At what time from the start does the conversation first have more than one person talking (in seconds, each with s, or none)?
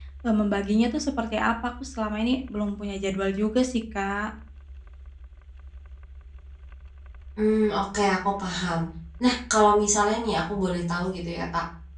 none